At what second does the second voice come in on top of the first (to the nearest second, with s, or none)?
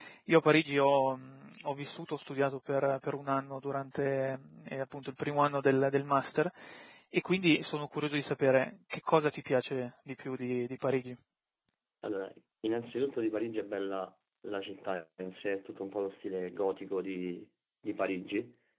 none